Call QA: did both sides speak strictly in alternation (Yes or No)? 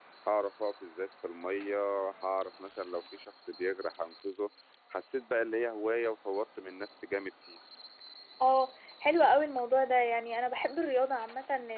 Yes